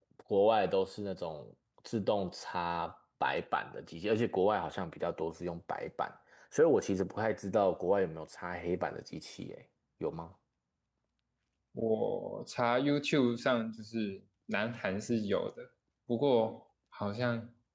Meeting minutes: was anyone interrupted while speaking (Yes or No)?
No